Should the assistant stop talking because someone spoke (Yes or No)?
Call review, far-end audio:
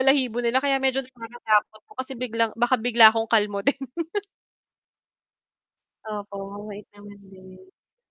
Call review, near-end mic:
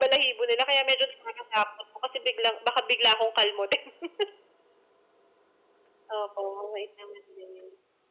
No